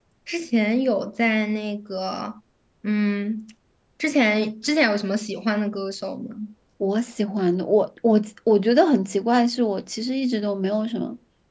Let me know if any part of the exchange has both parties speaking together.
No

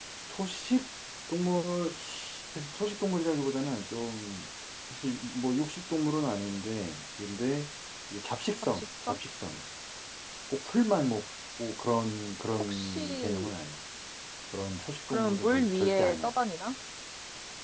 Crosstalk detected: Yes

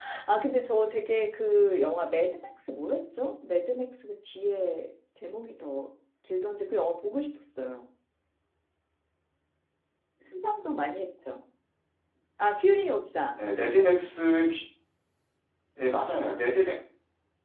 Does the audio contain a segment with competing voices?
No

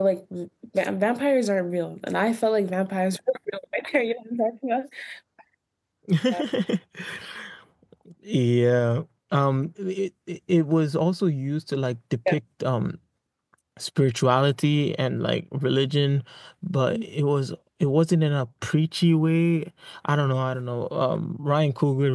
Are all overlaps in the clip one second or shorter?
Yes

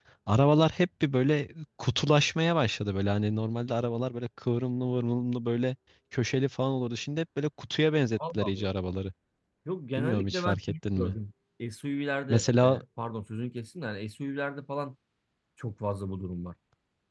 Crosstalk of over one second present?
Yes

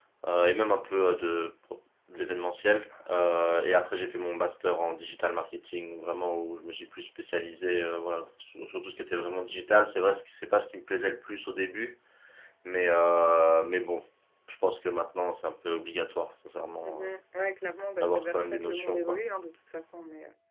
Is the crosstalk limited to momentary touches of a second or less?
No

